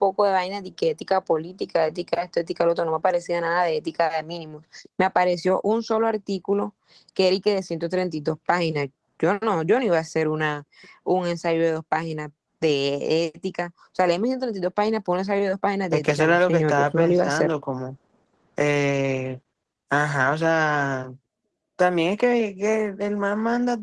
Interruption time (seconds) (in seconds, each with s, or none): 15.9 s